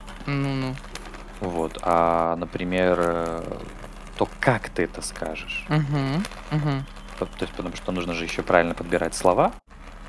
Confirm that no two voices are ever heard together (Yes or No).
Yes